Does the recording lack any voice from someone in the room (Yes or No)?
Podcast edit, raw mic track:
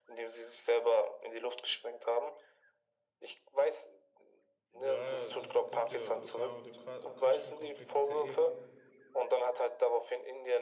No